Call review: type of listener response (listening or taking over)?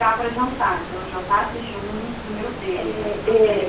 taking over